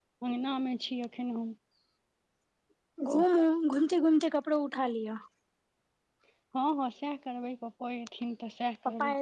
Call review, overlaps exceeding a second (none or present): none